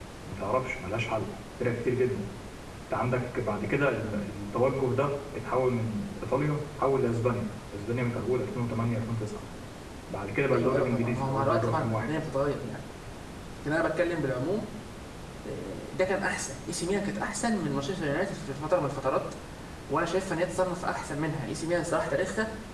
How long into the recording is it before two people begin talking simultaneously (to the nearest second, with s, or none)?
11 s